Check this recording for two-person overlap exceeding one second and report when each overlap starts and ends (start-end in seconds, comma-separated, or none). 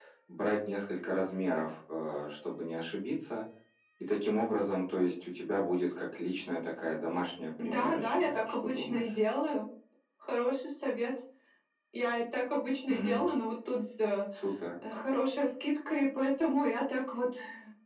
7.6-9.1